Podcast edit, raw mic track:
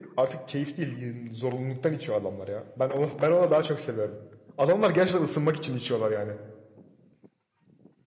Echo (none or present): present